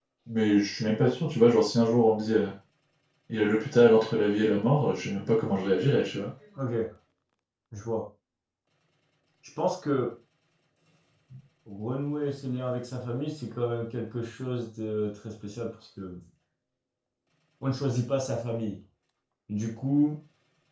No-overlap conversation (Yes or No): Yes